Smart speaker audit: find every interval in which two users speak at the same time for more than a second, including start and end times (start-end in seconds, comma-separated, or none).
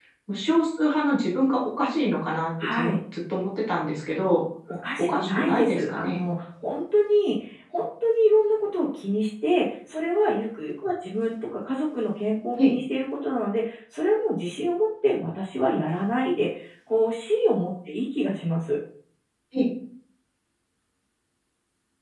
5.0-6.2